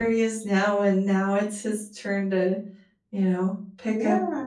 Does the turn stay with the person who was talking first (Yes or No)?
No